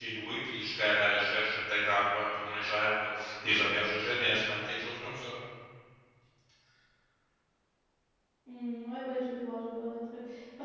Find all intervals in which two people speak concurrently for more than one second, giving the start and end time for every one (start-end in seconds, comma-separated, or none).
none